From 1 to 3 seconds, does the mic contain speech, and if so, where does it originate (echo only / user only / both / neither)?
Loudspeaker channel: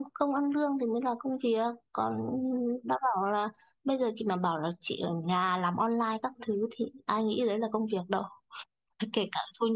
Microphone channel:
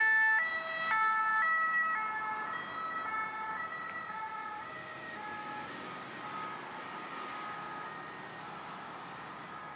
neither